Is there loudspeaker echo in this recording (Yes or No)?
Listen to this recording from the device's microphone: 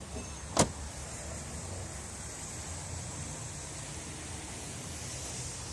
No